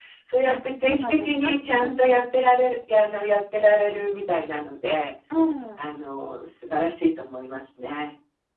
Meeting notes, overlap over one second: present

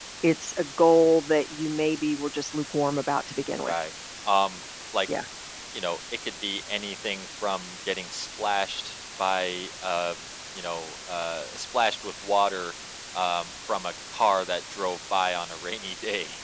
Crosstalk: none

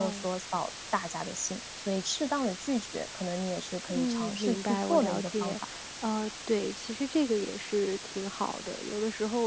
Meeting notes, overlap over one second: present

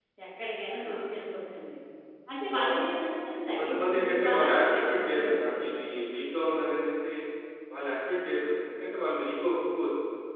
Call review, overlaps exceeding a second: present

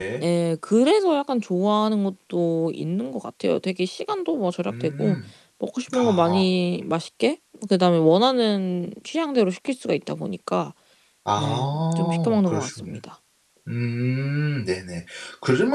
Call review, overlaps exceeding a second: present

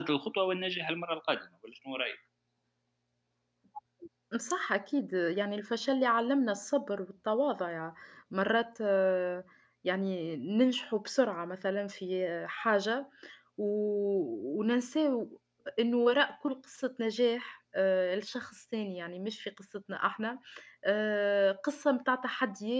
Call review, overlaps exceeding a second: none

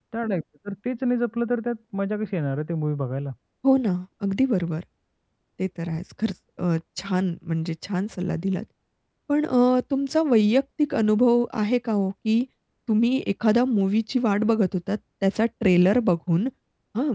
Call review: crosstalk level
none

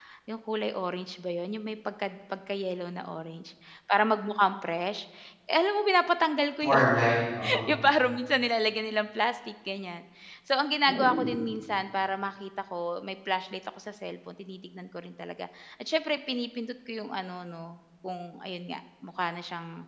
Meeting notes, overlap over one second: none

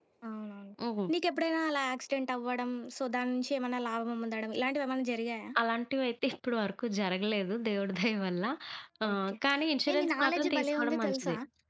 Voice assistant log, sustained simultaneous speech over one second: present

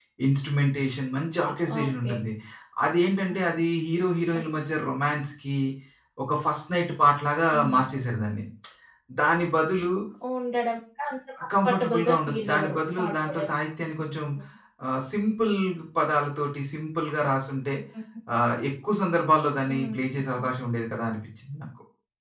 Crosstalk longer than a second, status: present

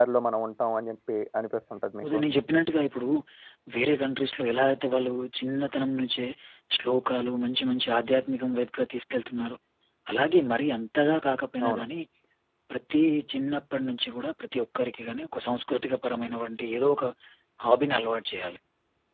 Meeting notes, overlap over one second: none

